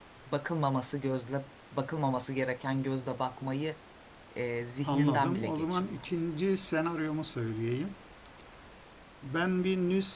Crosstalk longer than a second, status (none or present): present